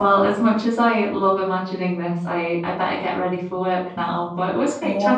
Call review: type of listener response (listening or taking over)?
taking over